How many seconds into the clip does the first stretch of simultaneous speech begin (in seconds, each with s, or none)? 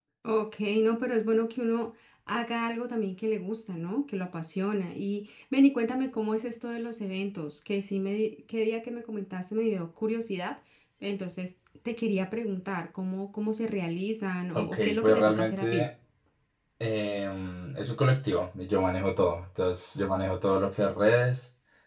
14.6 s